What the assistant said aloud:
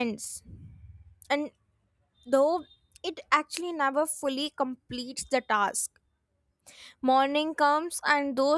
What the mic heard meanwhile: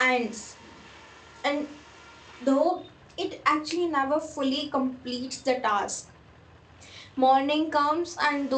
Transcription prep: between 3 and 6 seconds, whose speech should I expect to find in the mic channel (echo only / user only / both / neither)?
echo only